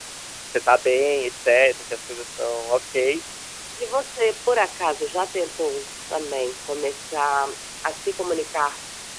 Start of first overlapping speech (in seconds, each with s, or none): none